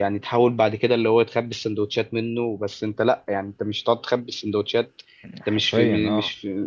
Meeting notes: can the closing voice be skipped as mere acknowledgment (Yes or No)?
Yes